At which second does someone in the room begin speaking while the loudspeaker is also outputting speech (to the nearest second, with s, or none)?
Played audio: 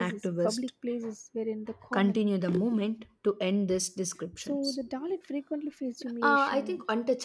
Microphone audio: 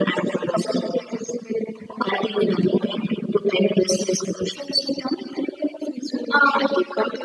none